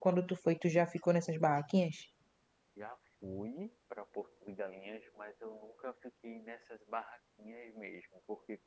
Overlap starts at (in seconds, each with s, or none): none